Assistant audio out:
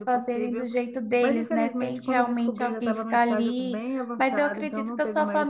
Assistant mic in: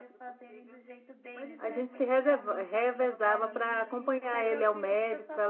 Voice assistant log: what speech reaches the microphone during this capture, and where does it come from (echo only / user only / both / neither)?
both